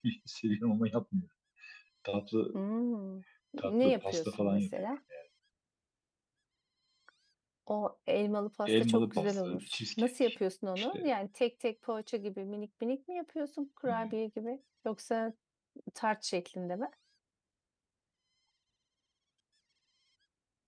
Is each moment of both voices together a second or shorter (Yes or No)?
No